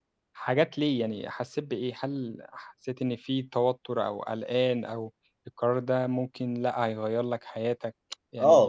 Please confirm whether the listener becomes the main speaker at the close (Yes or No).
Yes